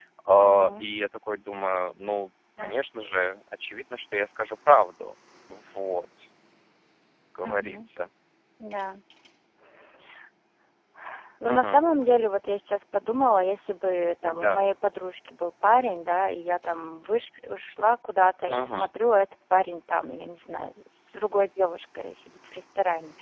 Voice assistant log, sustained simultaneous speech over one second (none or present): none